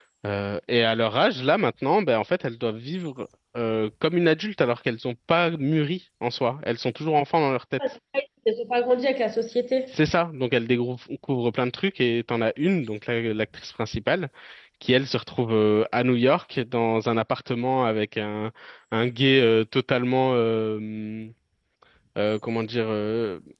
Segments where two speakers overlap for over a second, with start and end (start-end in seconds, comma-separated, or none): none